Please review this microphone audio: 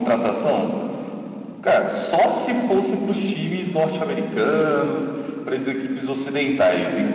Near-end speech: none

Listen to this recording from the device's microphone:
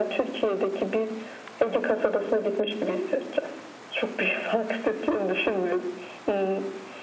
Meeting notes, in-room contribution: none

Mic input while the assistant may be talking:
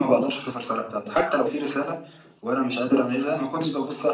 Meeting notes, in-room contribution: none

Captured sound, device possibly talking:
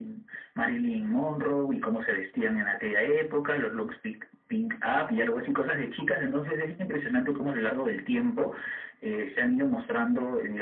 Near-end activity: none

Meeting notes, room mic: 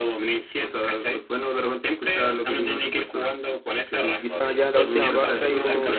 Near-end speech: present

